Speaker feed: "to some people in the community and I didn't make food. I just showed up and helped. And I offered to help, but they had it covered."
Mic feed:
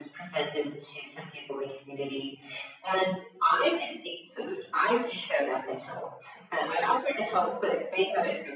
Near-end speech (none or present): none